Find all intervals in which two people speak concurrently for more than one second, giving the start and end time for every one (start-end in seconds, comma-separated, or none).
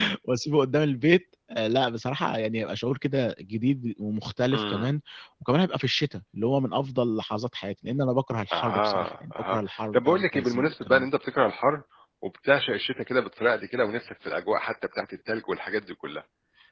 8.5-11.0